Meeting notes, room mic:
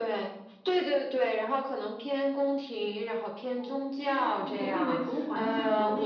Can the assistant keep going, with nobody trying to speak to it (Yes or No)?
Yes